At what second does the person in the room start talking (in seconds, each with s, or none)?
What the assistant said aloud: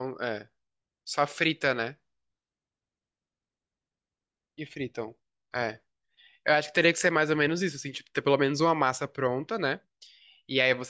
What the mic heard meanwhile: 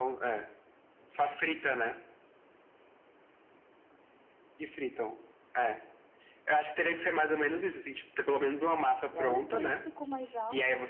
9.1 s